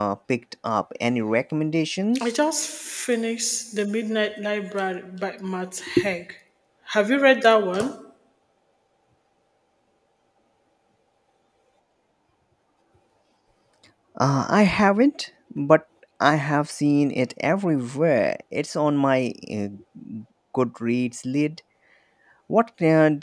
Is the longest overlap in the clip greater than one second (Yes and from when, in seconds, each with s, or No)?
No